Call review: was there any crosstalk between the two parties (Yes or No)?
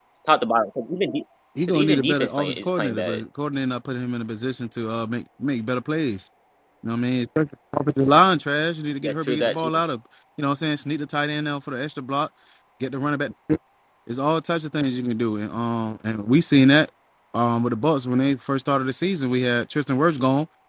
Yes